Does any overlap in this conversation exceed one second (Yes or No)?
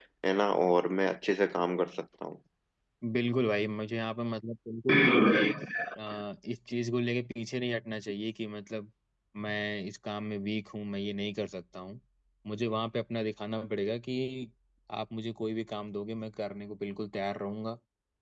No